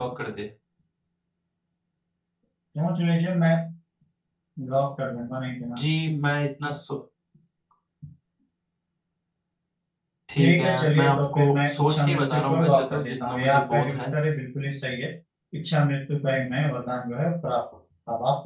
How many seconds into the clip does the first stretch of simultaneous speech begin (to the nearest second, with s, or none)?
10 s